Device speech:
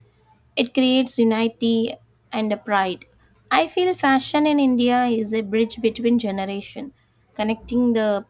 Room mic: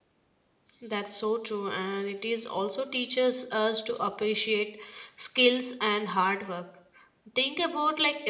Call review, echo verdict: none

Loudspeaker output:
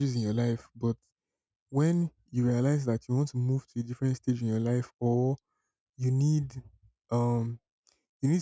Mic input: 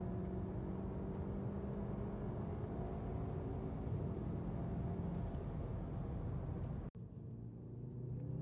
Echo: none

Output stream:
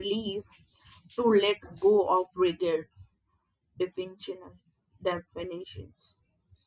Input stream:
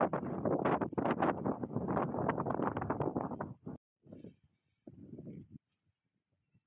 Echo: none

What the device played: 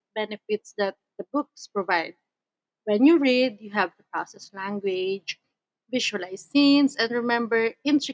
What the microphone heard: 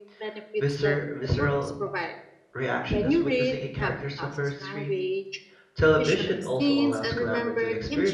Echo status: present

